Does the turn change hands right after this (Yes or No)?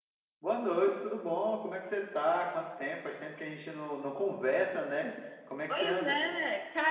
Yes